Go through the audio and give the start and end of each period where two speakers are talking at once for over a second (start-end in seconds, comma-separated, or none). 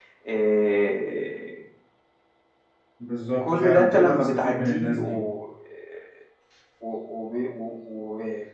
3.4-5.2